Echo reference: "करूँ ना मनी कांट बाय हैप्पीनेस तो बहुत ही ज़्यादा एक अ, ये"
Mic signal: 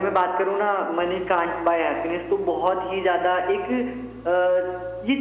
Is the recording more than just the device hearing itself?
No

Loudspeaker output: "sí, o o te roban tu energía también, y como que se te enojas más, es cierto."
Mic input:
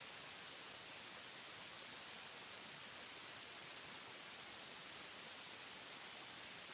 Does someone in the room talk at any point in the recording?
No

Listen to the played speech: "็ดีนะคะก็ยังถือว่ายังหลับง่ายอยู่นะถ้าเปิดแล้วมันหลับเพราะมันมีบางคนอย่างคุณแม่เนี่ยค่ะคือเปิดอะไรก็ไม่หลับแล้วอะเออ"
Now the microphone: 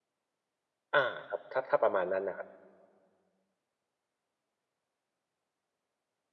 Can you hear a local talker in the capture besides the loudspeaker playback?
Yes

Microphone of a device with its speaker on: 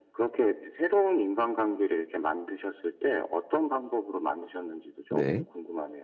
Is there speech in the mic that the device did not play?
Yes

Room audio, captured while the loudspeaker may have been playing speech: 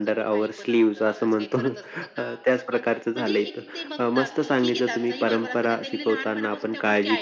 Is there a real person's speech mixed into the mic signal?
Yes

